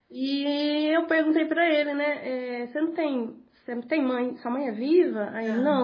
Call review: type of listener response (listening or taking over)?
listening